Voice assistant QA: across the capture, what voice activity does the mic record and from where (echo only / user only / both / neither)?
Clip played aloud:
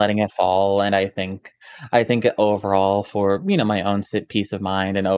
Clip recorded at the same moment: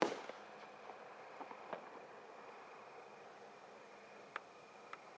neither